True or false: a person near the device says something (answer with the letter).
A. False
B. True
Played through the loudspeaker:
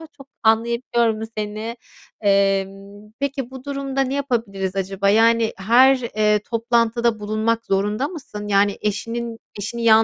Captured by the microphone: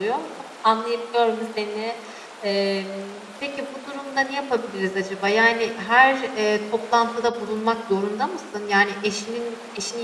A